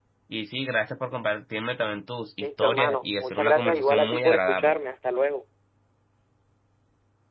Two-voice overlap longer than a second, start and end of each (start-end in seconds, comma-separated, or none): 2.4-4.8